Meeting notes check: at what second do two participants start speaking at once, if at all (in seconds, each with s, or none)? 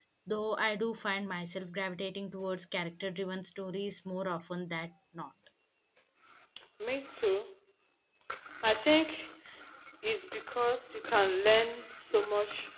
none